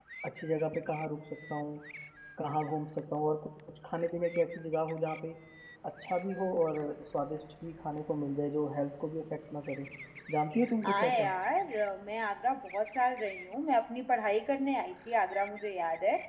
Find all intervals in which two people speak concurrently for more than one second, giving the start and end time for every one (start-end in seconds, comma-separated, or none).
none